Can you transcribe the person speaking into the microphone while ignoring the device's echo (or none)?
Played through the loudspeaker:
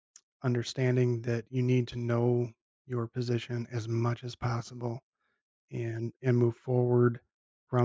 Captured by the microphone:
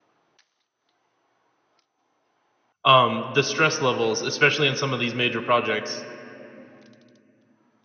um, the stress levels, especially in some of these major projects,